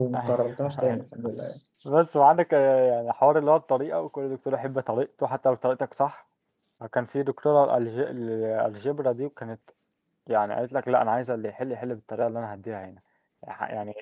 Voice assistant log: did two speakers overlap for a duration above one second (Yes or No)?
No